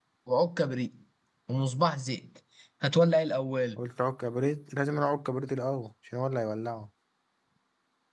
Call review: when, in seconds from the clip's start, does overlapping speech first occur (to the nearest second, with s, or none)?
none